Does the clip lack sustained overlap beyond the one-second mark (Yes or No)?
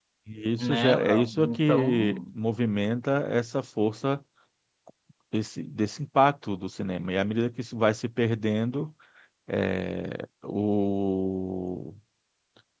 No